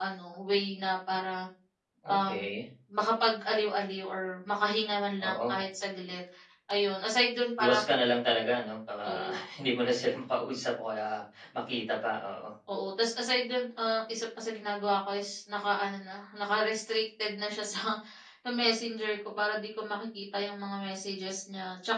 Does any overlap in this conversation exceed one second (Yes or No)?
No